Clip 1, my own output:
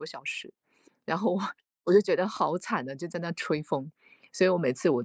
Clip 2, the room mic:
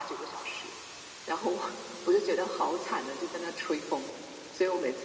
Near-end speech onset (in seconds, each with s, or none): none